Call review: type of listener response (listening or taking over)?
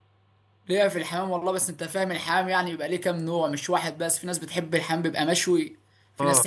listening